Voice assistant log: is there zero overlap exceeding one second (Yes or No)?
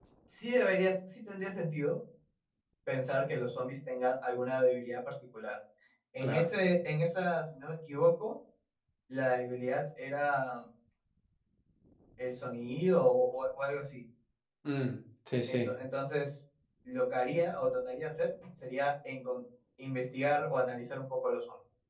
Yes